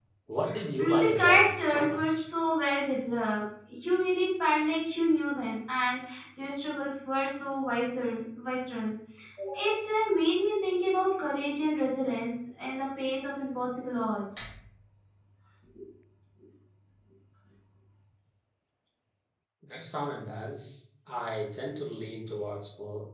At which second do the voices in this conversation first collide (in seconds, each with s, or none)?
0.8 s